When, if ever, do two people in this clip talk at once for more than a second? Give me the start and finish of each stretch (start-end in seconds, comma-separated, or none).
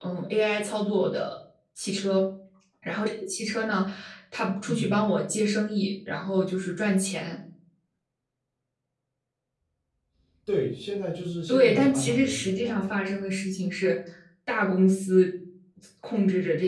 11.5-12.9